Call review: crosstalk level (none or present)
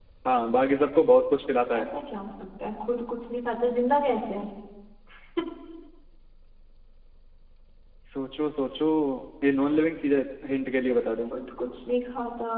none